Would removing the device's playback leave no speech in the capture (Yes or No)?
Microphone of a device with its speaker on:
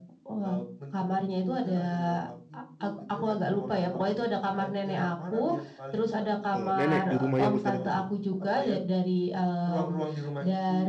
No